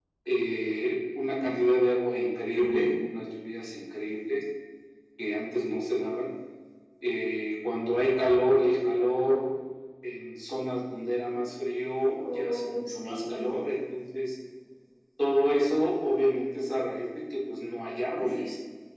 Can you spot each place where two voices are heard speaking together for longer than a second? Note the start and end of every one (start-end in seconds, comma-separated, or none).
12.1-13.4